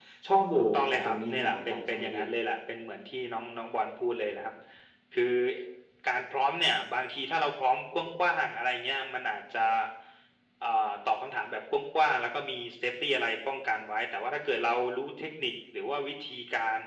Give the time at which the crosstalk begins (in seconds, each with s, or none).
0.6 s